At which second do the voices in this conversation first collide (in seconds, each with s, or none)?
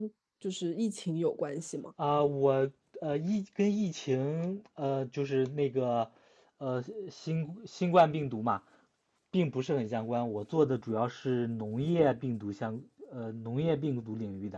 none